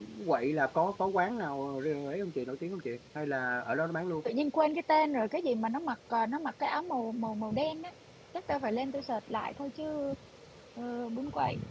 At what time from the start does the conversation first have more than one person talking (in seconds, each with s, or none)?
none